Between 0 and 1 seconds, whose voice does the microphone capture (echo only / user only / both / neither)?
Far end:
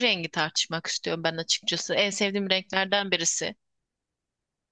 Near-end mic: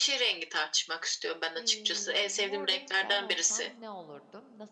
echo only